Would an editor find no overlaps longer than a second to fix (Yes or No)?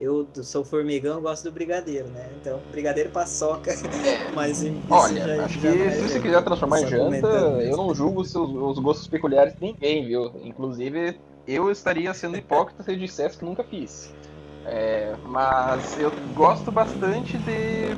No